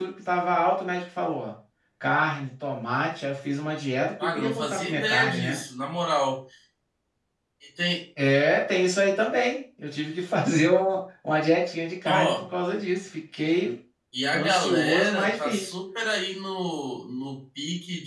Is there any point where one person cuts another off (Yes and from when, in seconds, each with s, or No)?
Yes, from 4.2 s